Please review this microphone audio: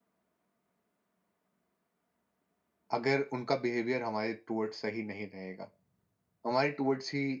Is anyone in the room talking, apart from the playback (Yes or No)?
Yes